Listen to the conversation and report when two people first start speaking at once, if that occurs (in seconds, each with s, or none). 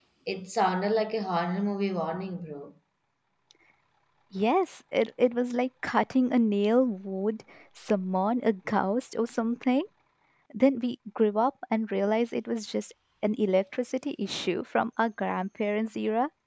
none